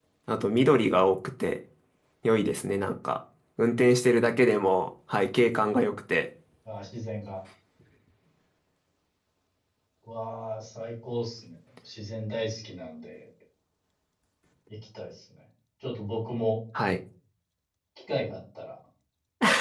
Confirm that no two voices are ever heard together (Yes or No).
Yes